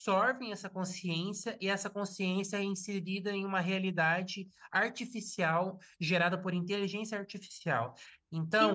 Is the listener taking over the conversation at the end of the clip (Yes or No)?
No